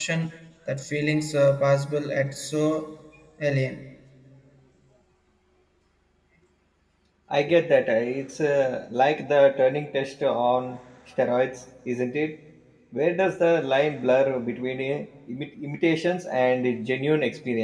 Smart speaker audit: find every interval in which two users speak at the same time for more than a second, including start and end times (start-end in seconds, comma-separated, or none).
none